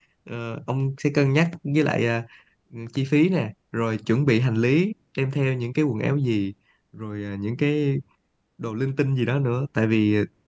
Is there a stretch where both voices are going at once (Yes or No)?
No